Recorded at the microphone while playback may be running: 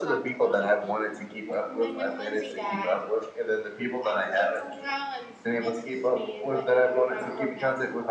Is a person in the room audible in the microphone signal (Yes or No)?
No